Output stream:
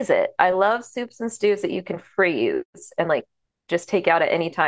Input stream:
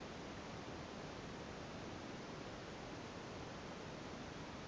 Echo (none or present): none